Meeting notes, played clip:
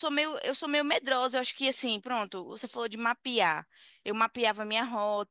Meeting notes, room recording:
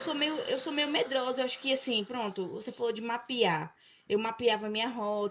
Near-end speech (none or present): none